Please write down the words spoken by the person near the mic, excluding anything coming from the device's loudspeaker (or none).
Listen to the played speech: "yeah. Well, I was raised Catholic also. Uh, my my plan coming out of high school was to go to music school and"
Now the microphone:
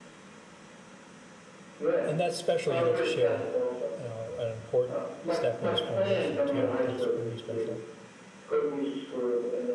And that's special you get to share, you an important step in his formation too. That's really special.